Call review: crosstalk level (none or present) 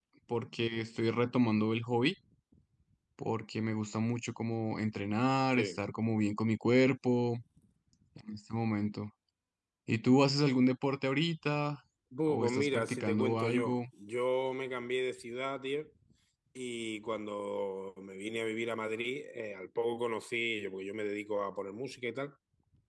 present